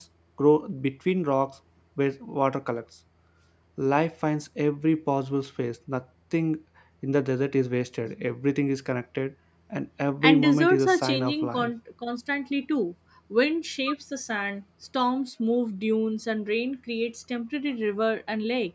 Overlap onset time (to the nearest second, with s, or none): 10 s